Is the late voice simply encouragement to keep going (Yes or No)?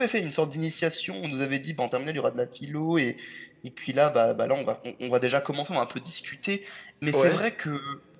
Yes